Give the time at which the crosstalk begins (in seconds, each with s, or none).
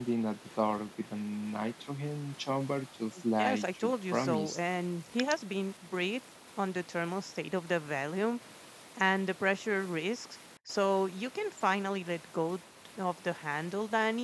3.4 s